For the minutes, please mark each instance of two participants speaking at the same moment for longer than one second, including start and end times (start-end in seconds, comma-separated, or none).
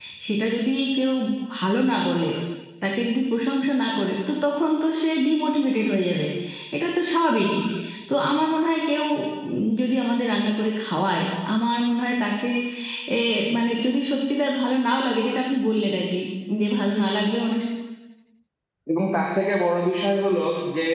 none